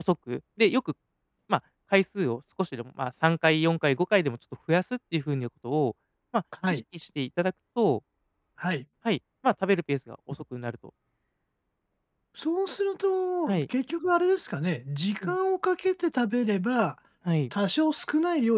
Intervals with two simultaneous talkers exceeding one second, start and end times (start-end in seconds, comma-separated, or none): none